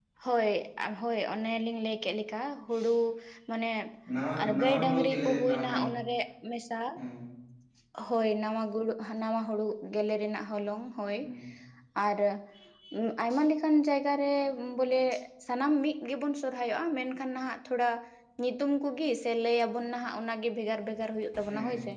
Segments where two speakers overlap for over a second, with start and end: 4.4-5.8

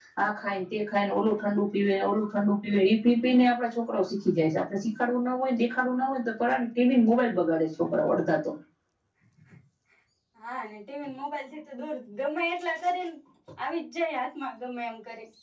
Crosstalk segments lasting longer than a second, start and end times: none

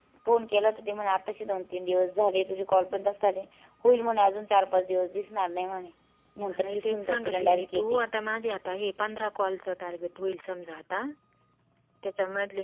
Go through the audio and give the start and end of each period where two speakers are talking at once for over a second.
6.5-8.0

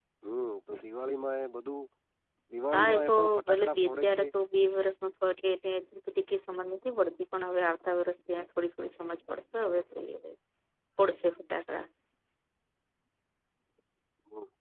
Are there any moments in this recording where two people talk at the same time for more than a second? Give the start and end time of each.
2.7-4.3

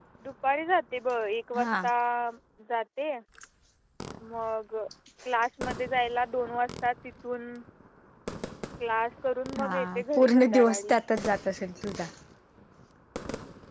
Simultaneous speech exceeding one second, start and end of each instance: 9.6-11.0

